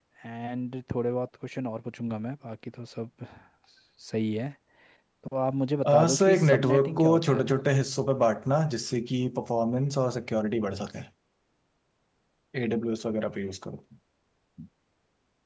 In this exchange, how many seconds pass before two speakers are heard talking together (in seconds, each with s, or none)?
5.8 s